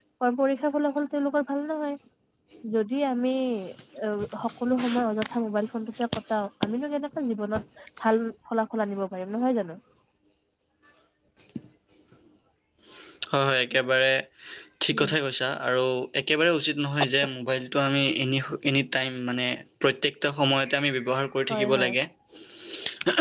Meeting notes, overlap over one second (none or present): none